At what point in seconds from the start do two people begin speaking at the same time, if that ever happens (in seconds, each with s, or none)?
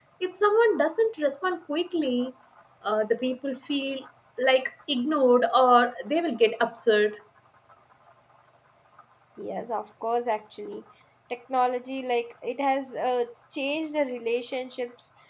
none